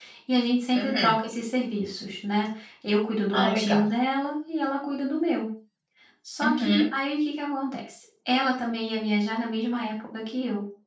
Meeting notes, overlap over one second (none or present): none